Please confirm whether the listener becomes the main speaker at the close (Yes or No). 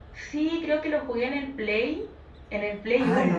Yes